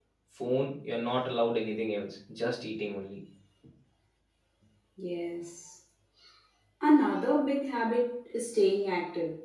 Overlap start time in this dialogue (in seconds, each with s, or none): none